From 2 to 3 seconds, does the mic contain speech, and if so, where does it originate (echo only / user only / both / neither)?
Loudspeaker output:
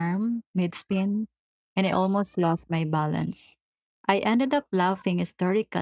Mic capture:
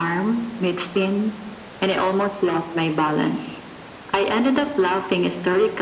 echo only